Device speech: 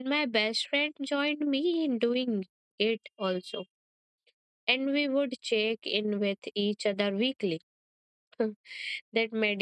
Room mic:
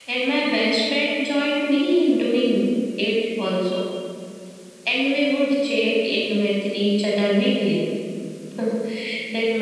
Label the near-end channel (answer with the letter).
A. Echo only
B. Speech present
A